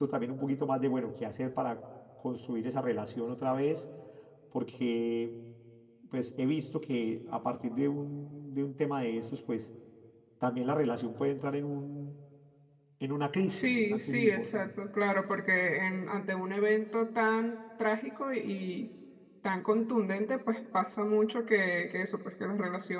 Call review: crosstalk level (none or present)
present